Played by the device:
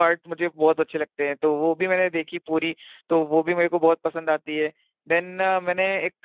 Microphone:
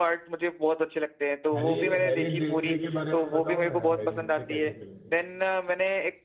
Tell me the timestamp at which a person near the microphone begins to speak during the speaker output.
2 s

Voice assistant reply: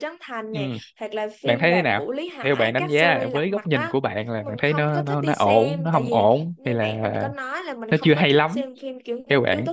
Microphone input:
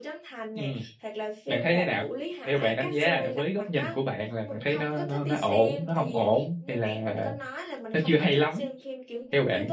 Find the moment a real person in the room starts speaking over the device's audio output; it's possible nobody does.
none

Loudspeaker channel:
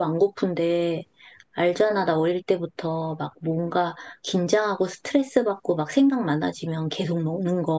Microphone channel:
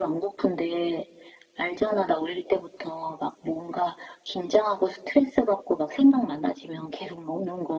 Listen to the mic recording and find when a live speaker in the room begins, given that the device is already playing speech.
none

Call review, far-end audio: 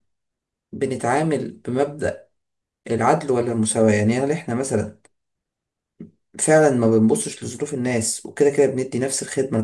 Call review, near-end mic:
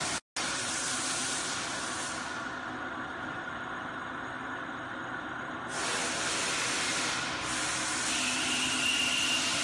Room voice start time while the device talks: none

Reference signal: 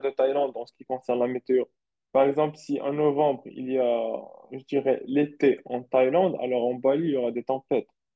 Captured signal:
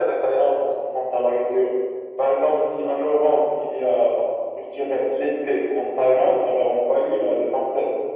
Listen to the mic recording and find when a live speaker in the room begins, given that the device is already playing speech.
none

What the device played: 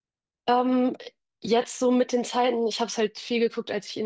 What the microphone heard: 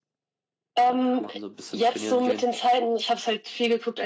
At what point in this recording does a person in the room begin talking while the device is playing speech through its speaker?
1 s

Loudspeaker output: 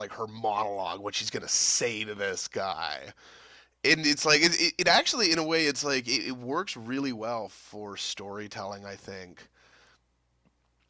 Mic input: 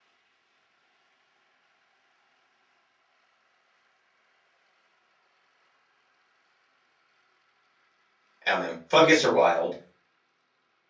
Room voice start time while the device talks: 8 s

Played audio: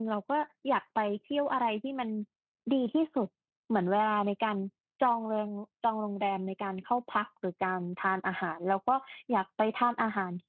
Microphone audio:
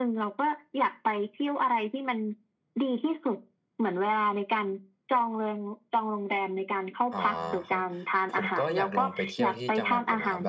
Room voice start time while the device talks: 7 s

